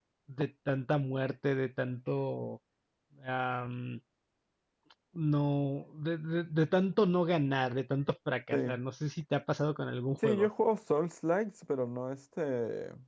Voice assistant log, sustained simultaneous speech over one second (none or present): none